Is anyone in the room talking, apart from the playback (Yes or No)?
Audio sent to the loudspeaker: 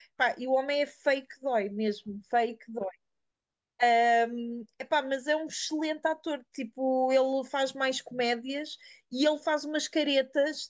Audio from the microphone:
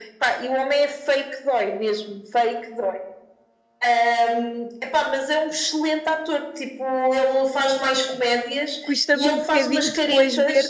Yes